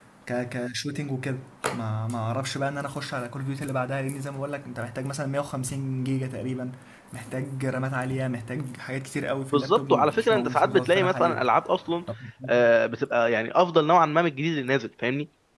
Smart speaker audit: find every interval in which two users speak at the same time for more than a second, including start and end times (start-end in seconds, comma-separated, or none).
9.5-11.4